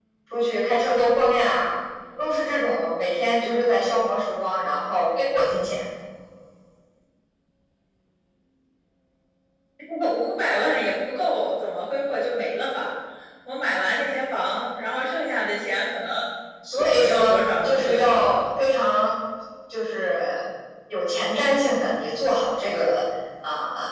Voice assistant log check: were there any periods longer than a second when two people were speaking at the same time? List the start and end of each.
16.7-18.5

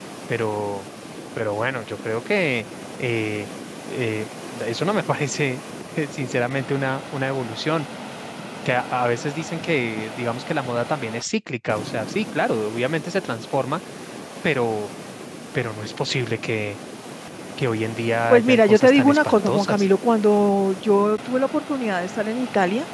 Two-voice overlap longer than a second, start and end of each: 18.3-19.9

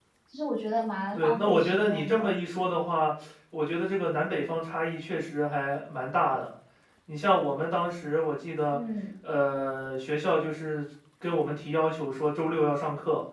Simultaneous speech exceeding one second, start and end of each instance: 1.1-2.4

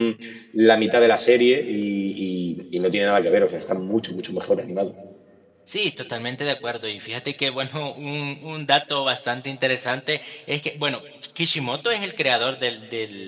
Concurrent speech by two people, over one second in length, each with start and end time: none

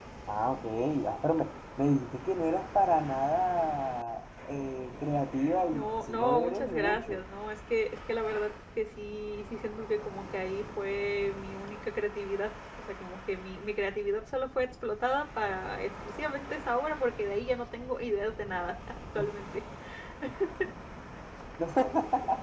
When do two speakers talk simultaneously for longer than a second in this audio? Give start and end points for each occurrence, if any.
5.7-7.2

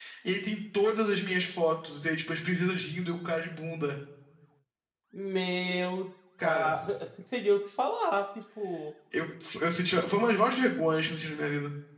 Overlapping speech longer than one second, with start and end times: none

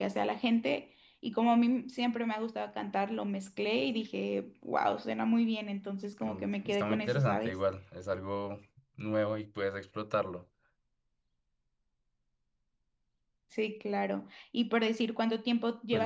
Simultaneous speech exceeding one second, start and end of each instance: 6.2-7.5

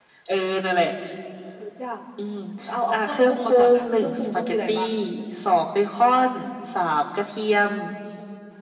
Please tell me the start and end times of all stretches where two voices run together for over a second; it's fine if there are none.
2.9-4.8

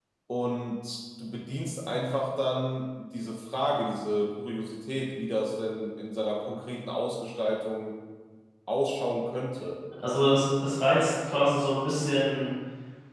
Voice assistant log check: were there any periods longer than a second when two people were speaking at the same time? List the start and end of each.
none

